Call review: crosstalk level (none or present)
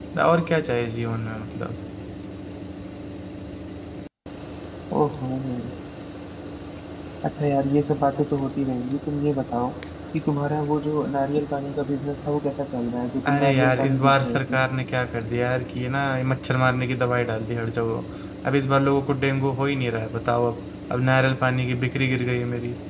present